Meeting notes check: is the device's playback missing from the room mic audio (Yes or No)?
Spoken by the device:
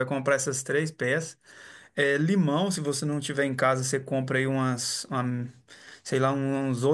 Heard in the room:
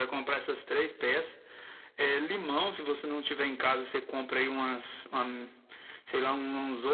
No